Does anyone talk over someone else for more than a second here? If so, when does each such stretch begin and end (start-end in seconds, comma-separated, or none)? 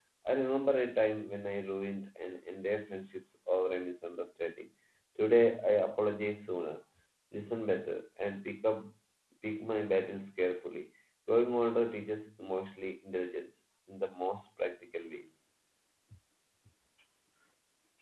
none